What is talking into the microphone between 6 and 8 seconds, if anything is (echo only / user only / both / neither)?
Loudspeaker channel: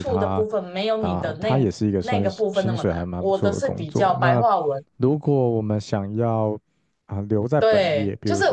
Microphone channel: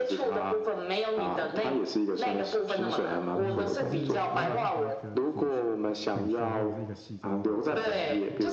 both